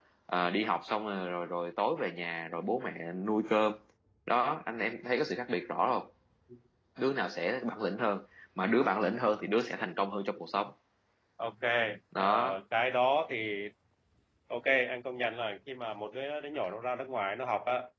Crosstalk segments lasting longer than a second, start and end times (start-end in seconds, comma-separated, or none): none